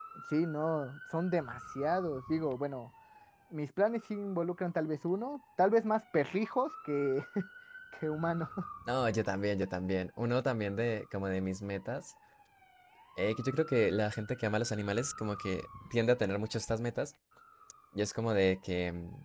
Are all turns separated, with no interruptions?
Yes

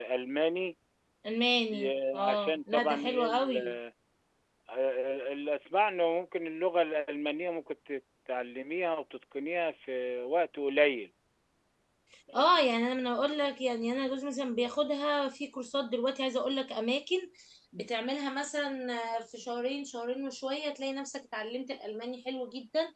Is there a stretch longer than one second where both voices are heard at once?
Yes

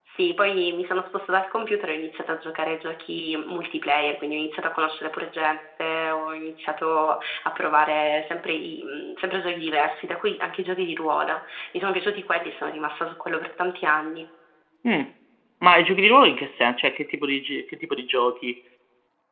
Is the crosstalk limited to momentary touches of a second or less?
Yes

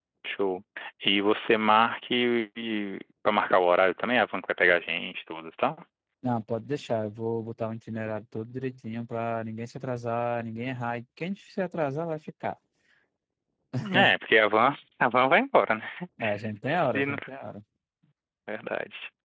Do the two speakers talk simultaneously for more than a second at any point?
No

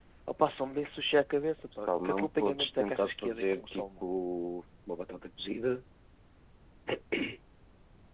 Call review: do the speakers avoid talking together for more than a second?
No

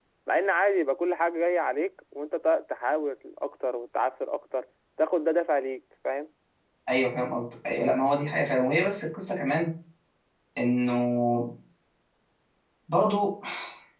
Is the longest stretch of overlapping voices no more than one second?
Yes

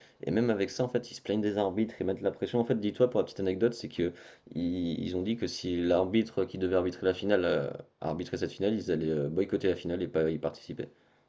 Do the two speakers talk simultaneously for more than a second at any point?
No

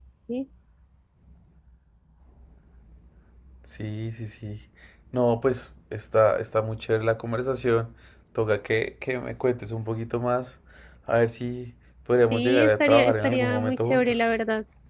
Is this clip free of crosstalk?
No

